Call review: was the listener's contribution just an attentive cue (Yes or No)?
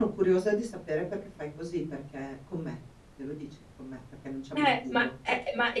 No